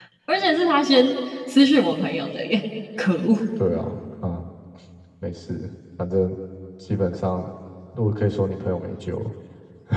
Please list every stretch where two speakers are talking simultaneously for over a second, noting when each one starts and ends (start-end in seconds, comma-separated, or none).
none